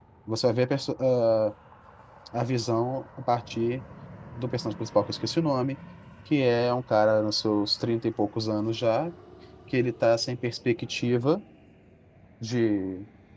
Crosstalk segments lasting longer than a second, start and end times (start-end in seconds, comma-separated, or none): none